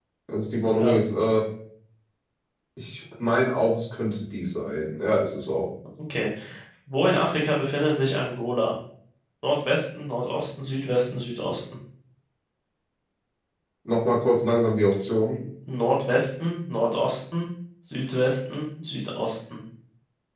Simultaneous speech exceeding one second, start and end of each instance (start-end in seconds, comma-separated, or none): none